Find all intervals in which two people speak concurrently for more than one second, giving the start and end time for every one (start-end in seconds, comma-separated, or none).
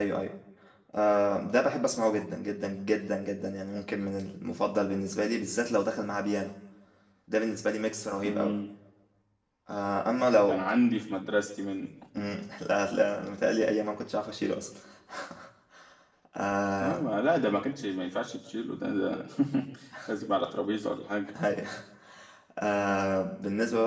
none